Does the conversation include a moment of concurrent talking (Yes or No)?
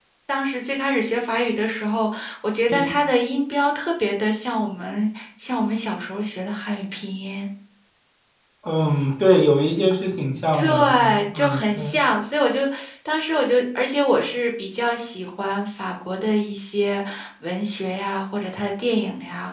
Yes